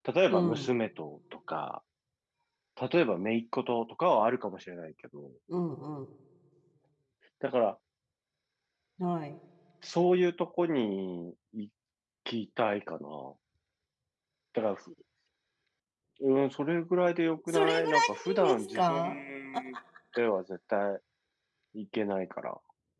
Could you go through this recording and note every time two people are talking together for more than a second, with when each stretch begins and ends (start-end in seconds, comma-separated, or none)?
17.5-19.2